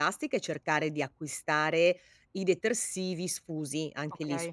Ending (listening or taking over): listening